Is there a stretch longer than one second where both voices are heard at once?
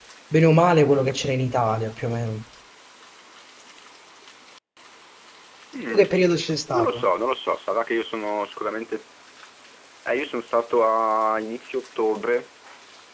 No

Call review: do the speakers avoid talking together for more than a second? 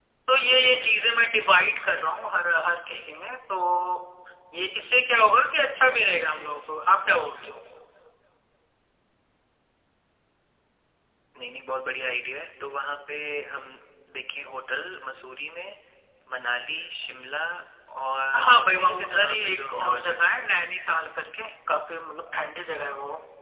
No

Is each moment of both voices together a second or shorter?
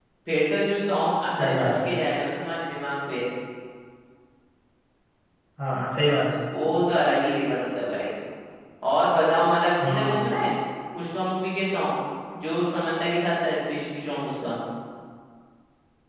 Yes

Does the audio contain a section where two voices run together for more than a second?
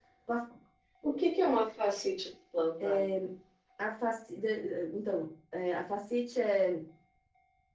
No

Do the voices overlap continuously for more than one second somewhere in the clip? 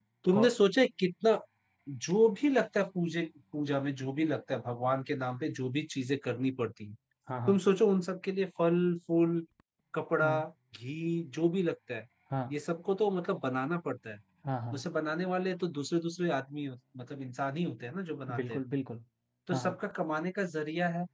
No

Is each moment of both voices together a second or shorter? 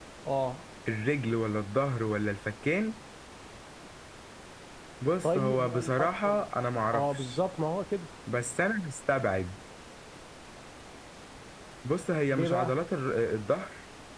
No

